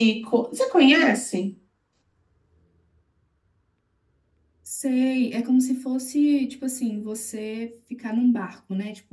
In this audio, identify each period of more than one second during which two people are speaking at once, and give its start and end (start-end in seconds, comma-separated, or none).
none